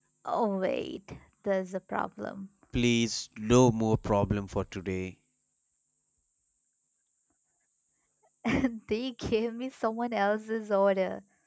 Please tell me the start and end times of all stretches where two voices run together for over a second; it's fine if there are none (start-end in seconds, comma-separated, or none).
none